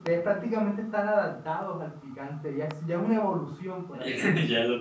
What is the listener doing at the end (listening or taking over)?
taking over